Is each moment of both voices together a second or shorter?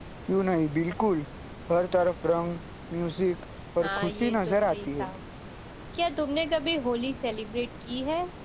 No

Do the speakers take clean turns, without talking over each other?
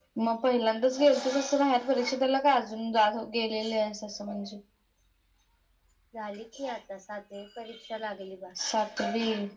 Yes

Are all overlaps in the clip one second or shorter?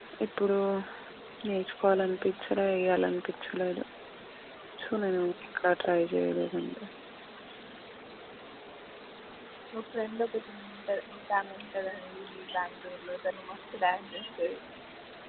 Yes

